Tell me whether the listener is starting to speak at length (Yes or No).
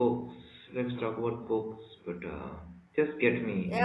Yes